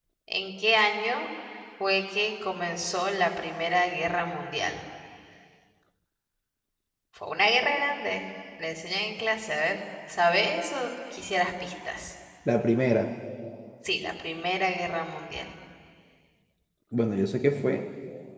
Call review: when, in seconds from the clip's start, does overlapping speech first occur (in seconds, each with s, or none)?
none